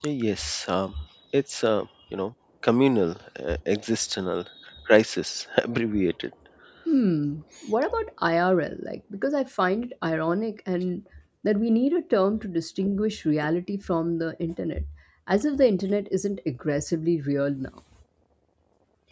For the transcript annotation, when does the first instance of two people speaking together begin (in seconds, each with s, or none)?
none